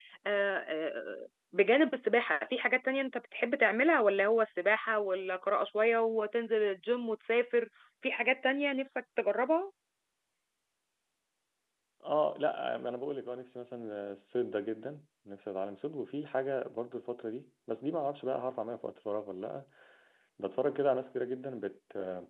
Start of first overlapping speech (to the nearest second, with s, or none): none